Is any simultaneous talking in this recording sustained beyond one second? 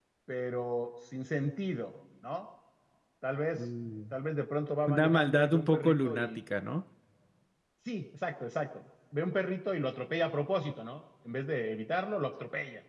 Yes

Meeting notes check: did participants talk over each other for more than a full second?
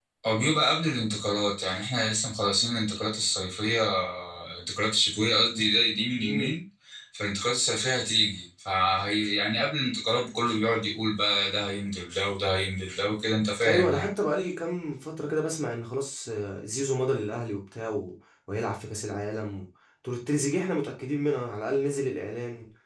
No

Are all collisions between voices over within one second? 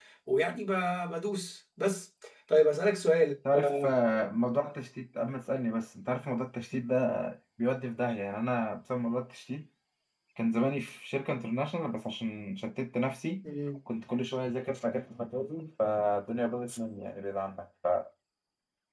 Yes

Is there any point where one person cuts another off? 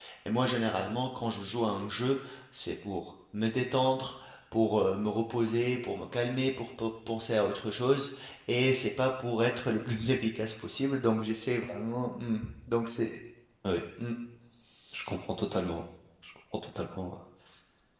No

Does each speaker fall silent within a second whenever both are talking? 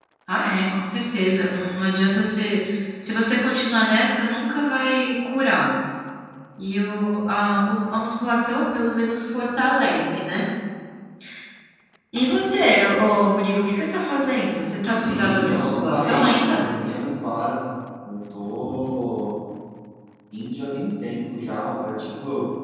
No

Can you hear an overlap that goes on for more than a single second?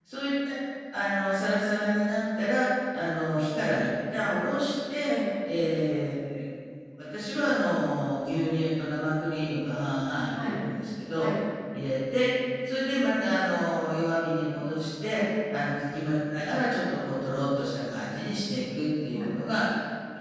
No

